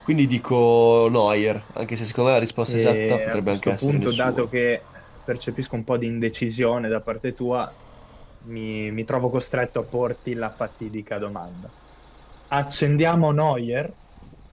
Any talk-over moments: Yes, from 2.7 s

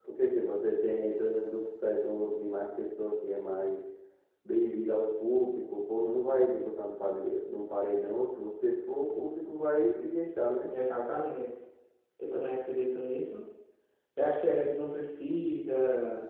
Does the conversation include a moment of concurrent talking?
No

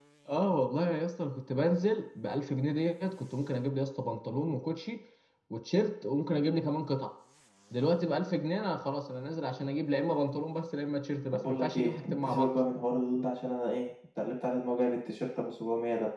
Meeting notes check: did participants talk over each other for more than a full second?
Yes, from 11.3 s

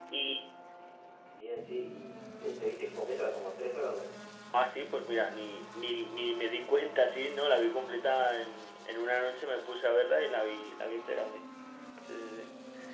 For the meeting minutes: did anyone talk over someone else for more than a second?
No

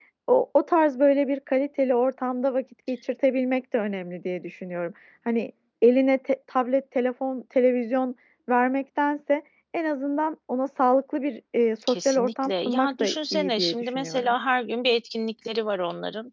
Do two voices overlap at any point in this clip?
Yes, from 11.8 s

